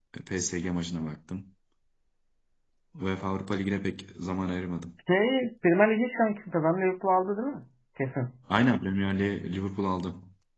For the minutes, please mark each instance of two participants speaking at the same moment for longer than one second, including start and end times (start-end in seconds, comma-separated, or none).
none